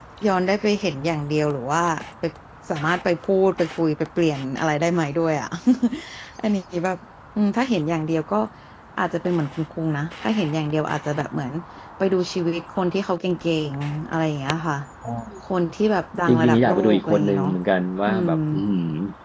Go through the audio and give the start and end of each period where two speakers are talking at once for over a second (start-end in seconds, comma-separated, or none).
16.3-17.5